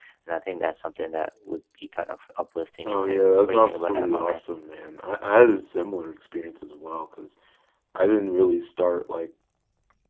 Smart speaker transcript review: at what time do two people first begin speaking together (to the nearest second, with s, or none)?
3 s